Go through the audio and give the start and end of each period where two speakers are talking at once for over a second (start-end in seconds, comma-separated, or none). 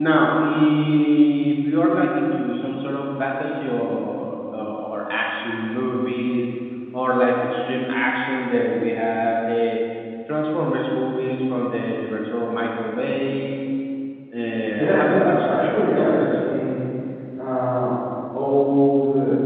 14.7-16.4